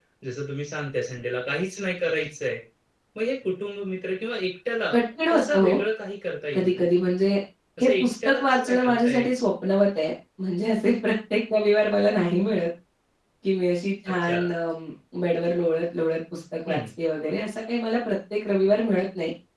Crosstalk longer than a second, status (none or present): present